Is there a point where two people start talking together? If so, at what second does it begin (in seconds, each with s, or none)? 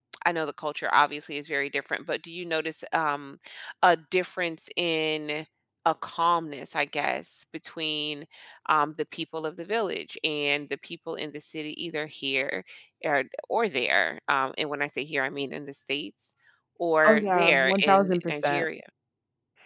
17.1 s